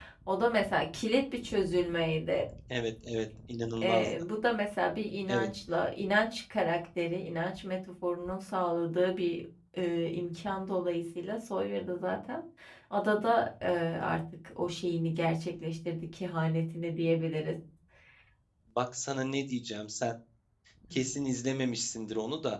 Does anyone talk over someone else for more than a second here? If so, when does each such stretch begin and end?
none

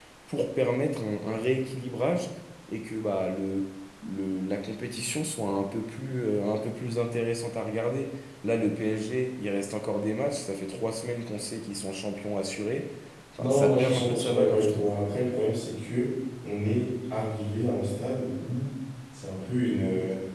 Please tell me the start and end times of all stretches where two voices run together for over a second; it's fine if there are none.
13.4-14.9

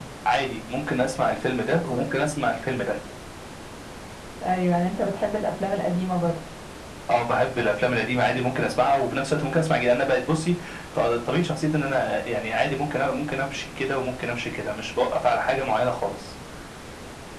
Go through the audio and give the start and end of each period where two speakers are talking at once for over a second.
none

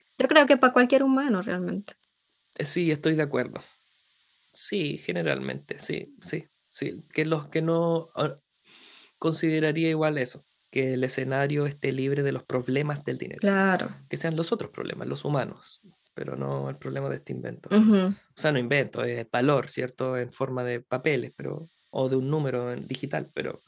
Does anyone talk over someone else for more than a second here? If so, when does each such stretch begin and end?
none

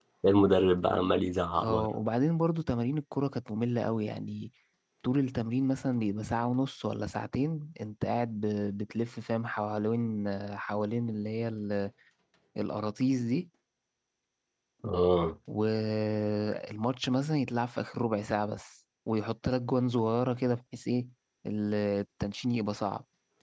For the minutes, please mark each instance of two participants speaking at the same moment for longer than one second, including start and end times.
none

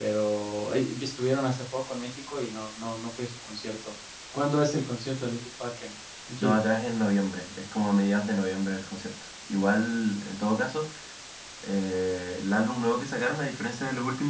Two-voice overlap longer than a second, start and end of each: none

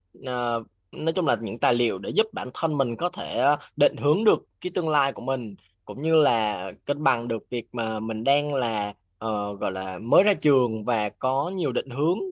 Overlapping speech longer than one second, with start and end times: none

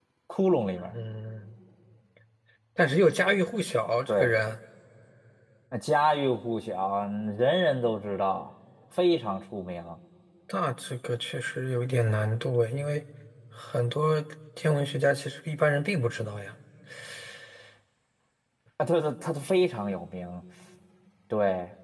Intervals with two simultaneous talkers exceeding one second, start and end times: none

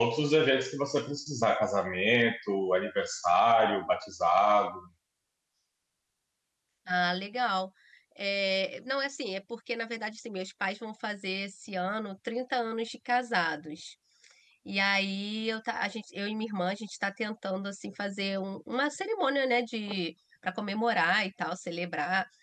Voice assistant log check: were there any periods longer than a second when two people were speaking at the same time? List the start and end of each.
none

